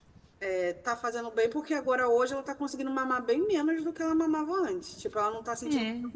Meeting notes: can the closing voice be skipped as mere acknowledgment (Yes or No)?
Yes